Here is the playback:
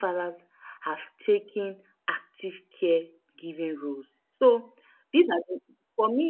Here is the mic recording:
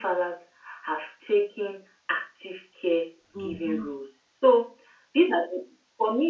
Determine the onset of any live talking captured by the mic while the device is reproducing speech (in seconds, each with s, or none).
3.3 s